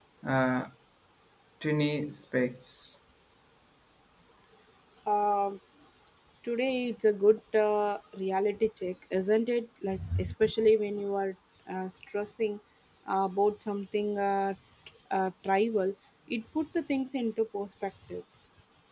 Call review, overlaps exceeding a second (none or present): none